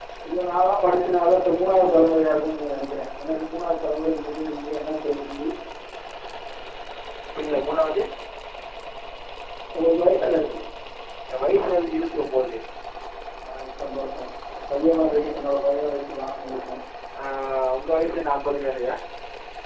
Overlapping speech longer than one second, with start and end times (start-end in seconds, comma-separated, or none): none